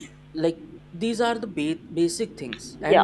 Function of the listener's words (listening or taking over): listening